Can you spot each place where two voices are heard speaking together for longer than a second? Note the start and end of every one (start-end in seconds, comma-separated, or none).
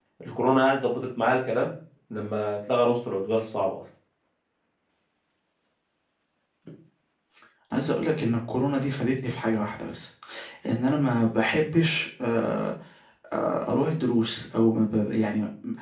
none